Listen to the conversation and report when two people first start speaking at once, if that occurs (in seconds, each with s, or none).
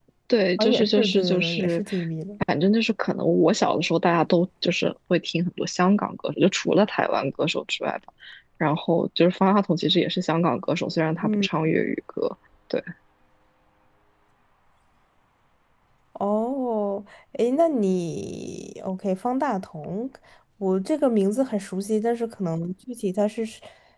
0.6 s